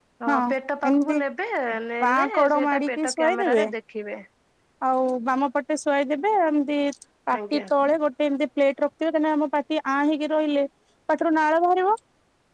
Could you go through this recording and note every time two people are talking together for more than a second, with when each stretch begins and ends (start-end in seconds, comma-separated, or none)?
2.0-3.6